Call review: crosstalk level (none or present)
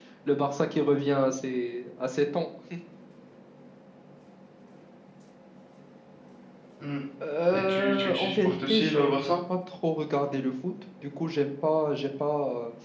present